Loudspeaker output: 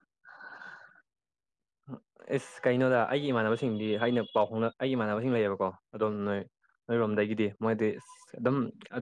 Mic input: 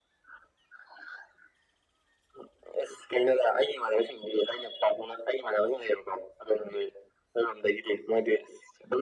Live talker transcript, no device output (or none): none